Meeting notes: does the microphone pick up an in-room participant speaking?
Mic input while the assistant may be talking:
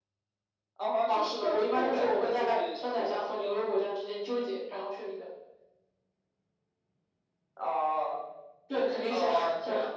No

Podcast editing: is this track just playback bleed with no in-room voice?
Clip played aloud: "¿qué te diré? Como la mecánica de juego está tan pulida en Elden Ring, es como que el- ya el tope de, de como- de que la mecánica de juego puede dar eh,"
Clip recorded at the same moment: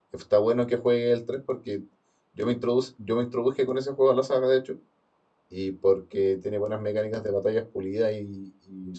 No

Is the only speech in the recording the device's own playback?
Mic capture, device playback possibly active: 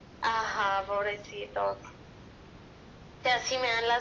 Yes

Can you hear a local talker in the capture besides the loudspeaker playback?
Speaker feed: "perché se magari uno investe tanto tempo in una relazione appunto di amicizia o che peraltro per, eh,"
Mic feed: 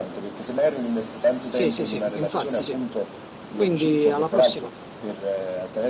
Yes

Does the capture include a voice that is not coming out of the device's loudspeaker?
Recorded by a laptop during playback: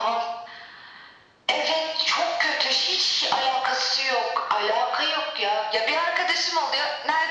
No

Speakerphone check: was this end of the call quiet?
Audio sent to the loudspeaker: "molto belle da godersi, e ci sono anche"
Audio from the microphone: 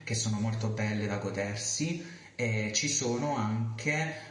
Yes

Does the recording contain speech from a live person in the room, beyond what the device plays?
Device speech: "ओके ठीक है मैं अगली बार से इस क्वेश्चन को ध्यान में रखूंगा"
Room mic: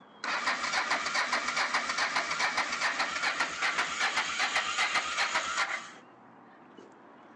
No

